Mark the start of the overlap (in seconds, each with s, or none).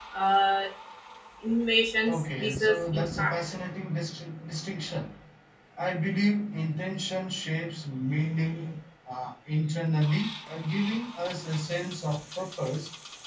2.1 s